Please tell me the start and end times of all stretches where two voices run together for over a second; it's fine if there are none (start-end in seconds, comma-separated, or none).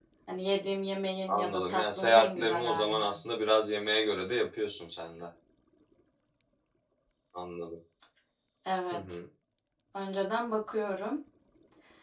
1.3-3.1